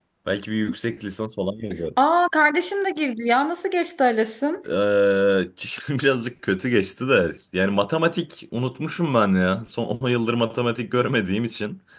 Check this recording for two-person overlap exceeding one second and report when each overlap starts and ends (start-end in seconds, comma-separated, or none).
none